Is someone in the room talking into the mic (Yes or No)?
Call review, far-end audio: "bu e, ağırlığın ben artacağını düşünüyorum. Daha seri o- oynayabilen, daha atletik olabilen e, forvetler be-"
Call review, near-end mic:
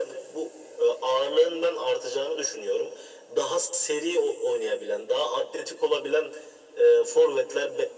No